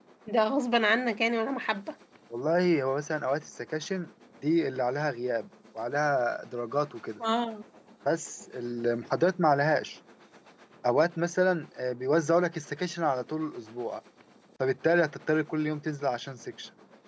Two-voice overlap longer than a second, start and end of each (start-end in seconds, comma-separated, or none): none